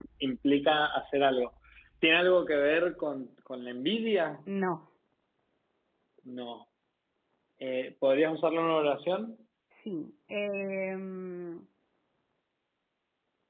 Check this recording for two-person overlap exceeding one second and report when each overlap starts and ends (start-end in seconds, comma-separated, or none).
none